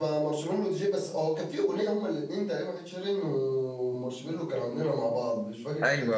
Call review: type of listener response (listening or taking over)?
taking over